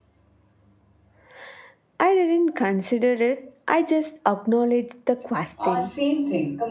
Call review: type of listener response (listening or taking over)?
taking over